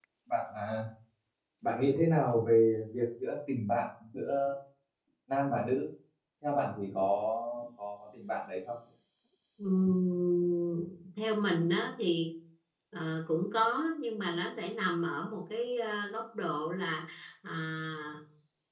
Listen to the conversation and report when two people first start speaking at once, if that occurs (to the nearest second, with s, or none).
none